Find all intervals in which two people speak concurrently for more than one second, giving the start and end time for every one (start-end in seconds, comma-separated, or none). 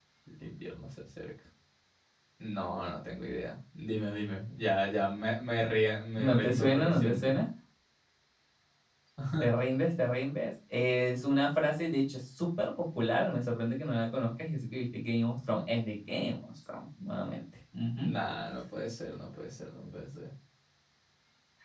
6.2-7.4